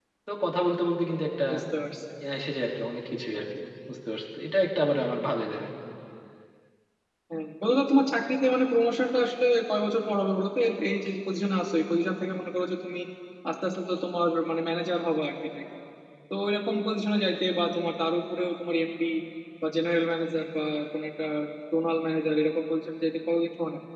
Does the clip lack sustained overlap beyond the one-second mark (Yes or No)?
Yes